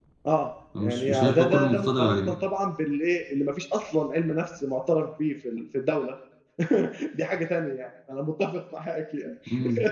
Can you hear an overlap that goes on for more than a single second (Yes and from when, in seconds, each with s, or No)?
Yes, from 0.8 s